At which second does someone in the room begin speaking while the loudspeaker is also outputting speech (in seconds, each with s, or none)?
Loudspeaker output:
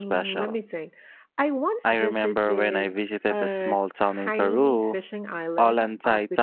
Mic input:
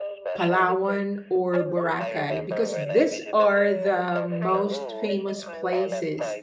0.3 s